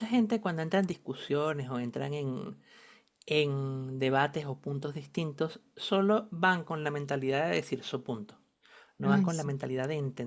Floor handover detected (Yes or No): No